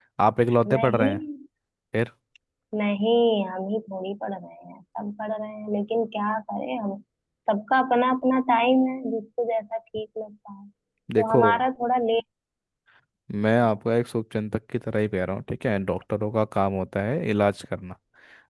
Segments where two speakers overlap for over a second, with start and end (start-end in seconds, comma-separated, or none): none